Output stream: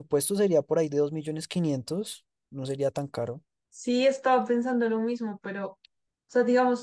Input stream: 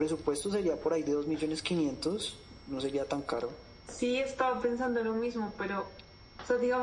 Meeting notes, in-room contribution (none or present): none